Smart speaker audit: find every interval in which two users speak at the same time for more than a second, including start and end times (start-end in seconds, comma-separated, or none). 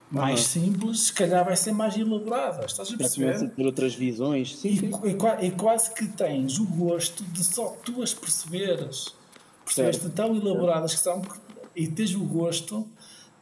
none